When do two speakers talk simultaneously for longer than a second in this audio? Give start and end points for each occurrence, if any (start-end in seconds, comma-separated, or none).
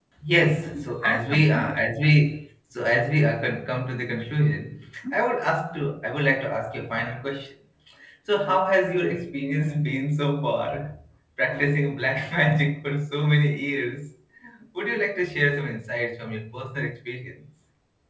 0.6-1.9